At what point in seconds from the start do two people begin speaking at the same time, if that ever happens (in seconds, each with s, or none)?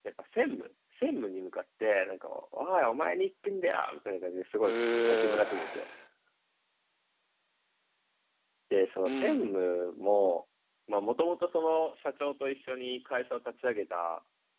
4.6 s